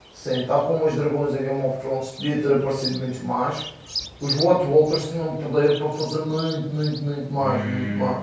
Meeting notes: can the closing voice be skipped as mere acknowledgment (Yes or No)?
No